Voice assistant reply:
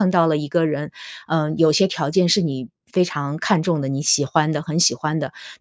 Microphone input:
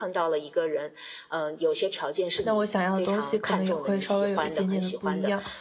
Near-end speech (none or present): present